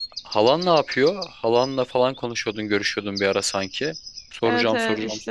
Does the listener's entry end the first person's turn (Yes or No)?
Yes